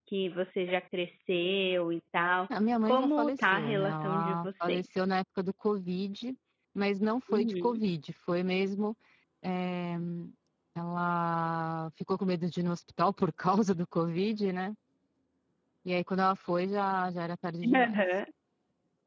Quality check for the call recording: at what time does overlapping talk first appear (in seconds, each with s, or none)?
2.9 s